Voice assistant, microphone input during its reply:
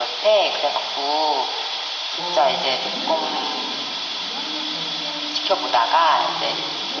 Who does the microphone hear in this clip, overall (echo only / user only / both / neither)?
both